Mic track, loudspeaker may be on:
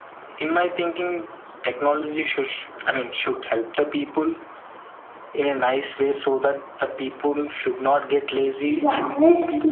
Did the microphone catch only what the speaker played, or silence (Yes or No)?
No